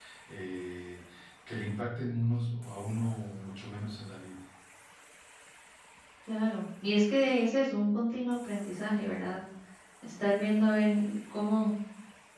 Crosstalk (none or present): none